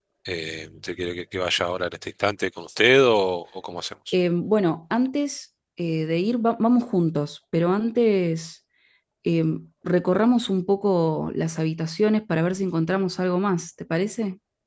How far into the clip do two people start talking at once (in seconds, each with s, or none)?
none